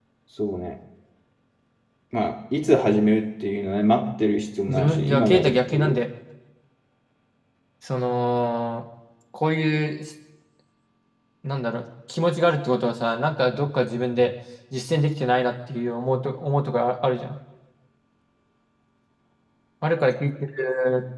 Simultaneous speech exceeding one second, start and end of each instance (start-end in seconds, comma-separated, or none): 4.7-6.0